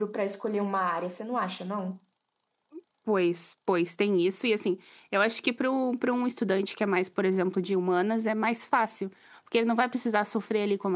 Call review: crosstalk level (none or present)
none